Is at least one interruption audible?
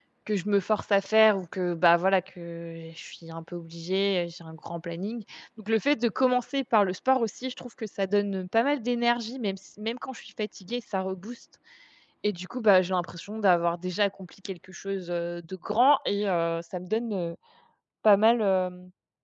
No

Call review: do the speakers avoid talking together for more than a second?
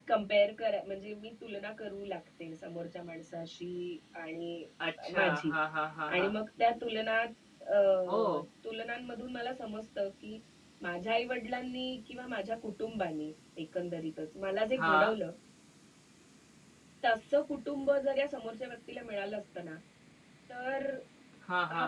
Yes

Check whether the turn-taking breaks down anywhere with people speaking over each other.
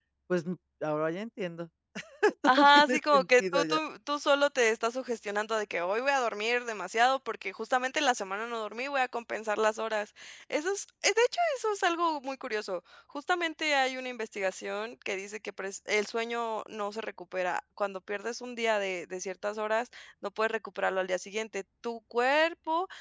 Yes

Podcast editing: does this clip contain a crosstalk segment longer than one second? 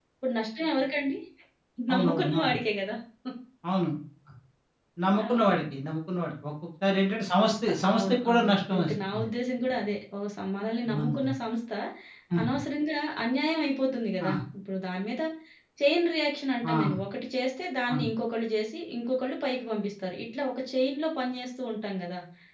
Yes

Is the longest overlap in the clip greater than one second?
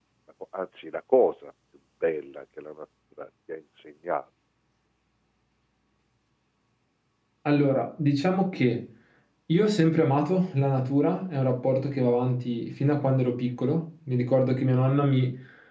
No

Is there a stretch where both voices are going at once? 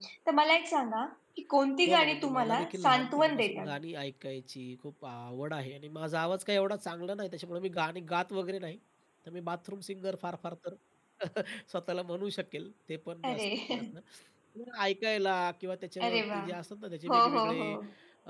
Yes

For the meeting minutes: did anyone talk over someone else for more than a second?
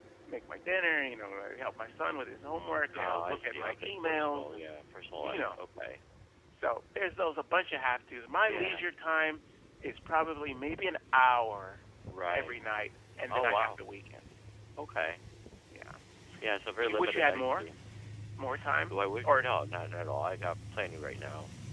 Yes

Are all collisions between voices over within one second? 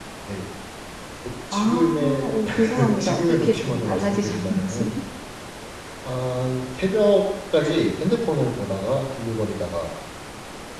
No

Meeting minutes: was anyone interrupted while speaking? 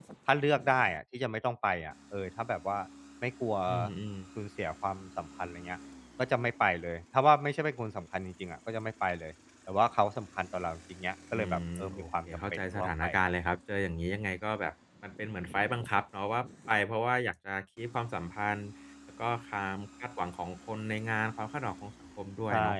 Yes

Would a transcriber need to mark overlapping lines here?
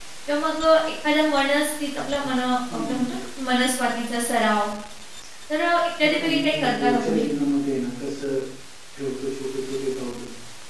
Yes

